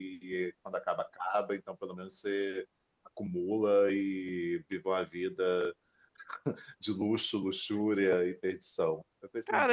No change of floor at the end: No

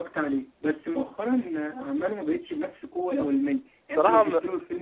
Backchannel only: Yes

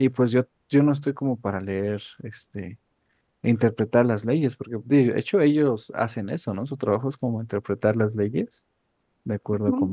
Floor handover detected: Yes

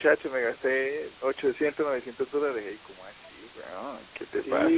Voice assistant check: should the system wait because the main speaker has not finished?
No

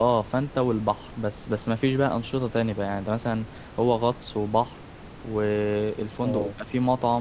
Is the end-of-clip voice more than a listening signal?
No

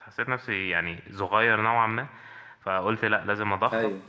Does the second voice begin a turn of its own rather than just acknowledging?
No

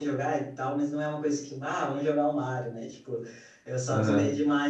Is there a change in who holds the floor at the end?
No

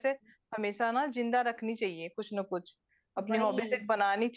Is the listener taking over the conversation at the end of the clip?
No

